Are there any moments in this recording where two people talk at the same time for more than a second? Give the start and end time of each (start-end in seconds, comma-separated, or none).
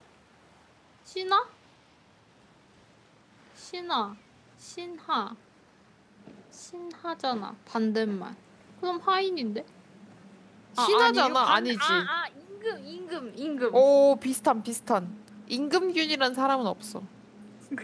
10.8-12.1